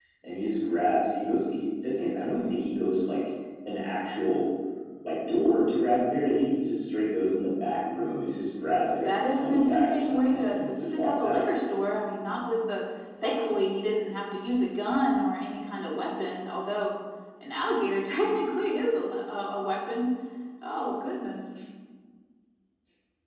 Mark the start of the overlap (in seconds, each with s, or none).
8.9 s